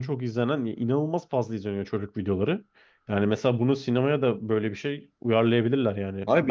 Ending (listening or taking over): taking over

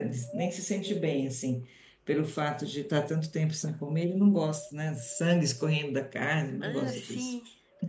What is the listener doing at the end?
taking over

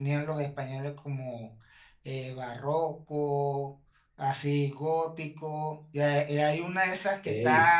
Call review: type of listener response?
listening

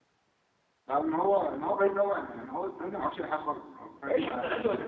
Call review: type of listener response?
taking over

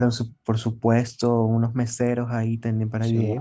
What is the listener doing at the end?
listening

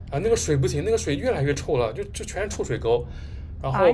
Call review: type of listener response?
listening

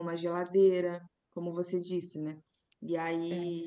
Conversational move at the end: listening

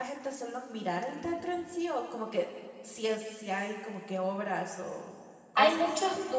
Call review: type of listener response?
taking over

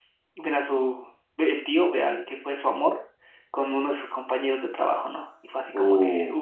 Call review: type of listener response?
taking over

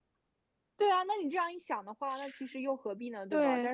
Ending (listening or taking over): taking over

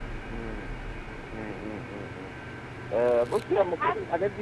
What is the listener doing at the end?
listening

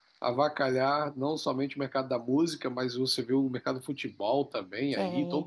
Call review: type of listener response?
listening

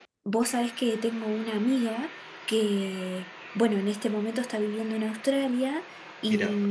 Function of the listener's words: listening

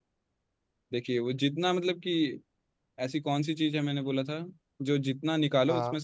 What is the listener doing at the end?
listening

